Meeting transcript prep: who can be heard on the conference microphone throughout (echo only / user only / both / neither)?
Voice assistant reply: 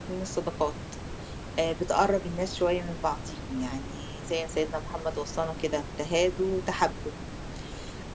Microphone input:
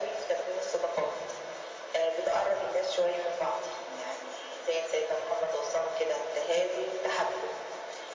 echo only